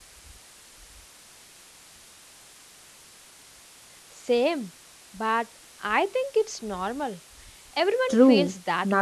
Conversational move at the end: taking over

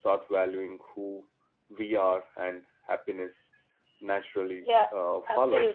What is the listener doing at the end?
taking over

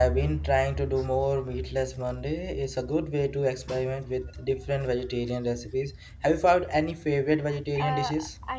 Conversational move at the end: taking over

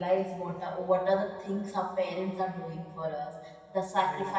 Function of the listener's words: listening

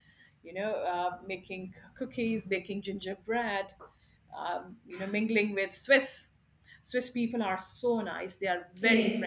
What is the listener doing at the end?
taking over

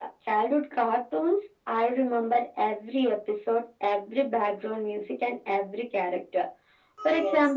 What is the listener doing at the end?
listening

